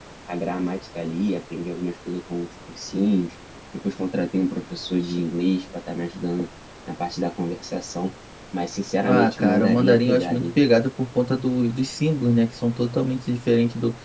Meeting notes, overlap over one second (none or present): present